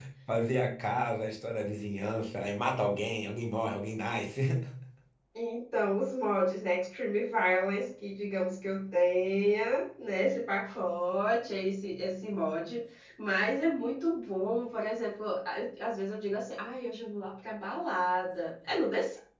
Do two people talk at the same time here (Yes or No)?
No